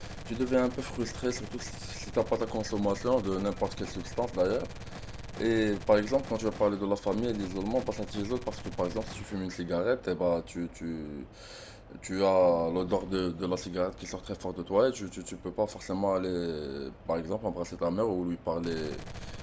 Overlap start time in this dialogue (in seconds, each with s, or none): none